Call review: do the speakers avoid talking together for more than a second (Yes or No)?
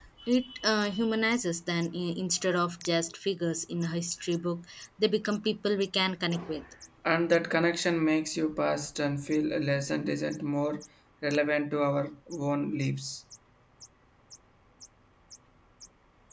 Yes